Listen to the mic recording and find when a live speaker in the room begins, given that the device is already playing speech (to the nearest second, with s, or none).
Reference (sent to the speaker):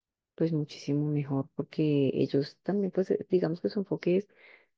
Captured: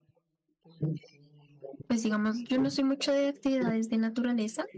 2 s